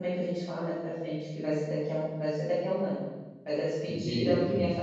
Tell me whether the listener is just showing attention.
Yes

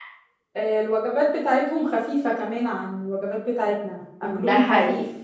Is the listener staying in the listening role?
No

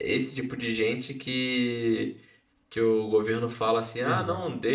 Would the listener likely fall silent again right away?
Yes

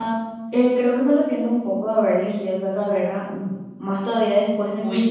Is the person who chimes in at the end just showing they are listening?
Yes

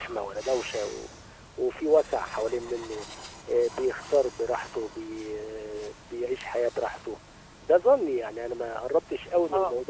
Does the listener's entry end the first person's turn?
No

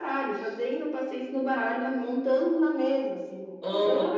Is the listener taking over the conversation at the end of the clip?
Yes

